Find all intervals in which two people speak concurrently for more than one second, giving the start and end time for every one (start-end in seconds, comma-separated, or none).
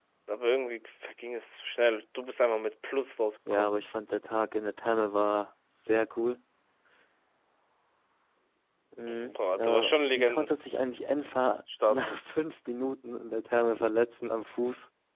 9.3-10.5